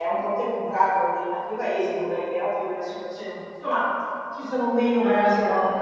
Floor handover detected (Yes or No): Yes